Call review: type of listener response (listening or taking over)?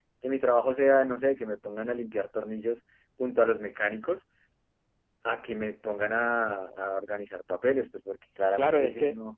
taking over